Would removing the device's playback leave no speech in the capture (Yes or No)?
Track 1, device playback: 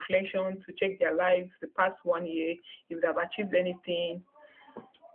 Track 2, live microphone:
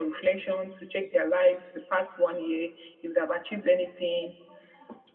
Yes